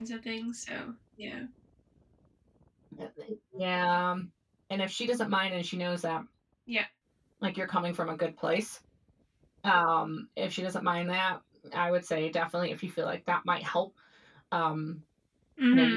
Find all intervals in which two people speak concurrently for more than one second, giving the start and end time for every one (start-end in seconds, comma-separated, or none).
none